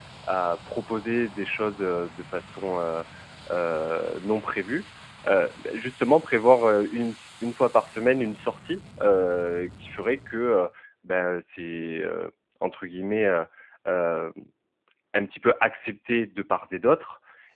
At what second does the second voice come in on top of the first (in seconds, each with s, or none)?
none